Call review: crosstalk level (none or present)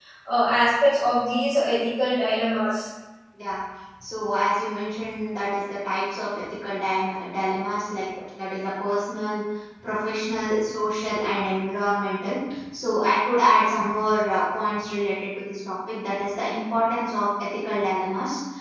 none